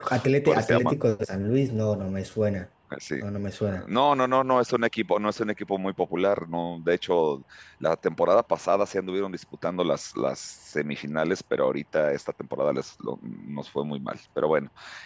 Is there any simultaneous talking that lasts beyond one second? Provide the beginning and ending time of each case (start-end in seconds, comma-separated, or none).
none